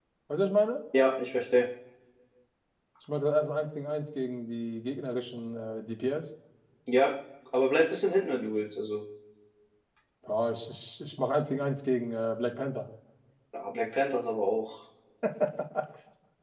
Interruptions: none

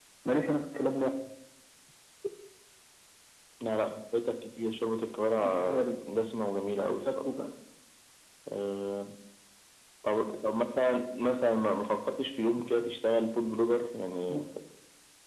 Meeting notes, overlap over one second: none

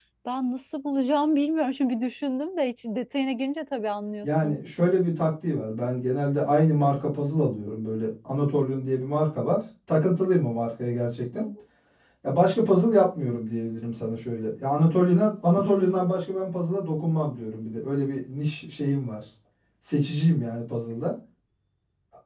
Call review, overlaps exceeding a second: none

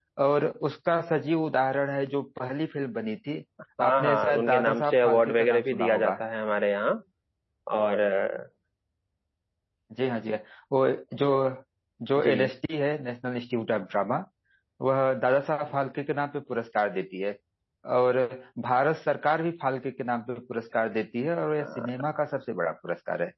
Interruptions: present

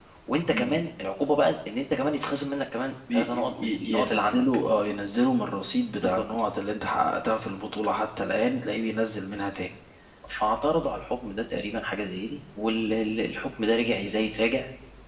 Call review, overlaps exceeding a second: present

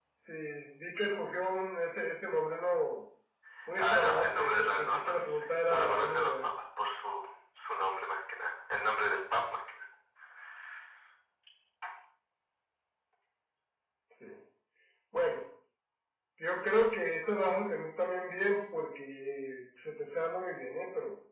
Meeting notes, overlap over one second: present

